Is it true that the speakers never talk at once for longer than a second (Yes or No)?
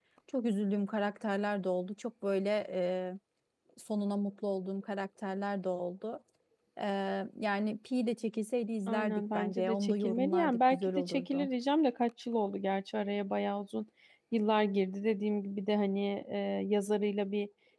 No